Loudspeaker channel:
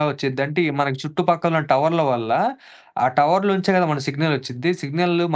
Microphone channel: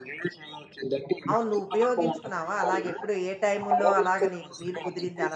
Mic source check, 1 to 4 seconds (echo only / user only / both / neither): both